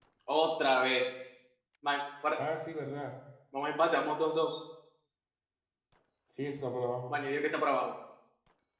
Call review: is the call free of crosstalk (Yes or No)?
Yes